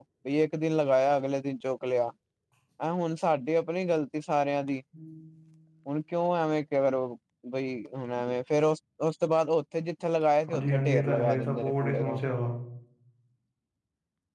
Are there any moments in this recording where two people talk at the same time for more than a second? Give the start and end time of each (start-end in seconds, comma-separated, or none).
10.5-12.2